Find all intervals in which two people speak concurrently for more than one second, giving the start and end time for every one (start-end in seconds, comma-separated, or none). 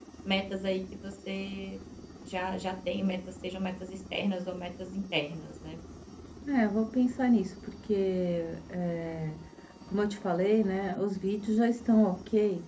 none